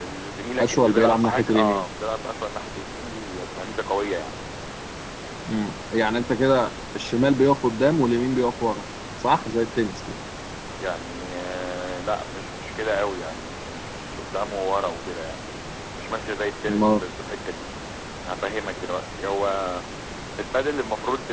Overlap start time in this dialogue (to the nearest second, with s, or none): 1 s